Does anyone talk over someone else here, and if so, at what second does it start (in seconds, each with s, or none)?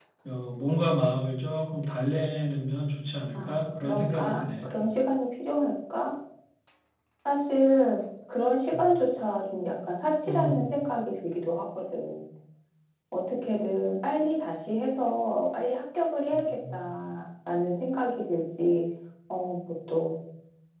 3.3 s